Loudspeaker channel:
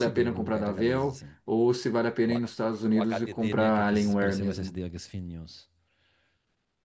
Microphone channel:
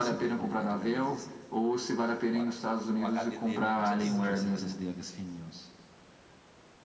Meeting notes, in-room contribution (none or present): present